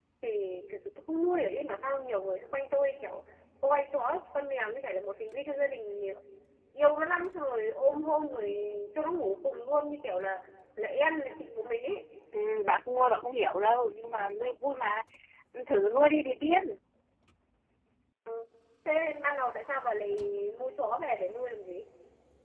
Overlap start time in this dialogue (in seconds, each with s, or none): none